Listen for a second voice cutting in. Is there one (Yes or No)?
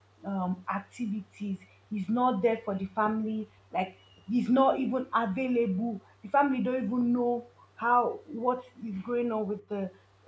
No